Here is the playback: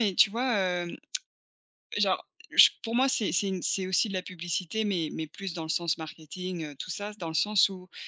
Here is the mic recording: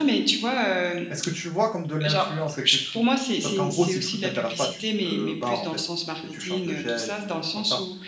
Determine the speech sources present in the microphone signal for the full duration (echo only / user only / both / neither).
both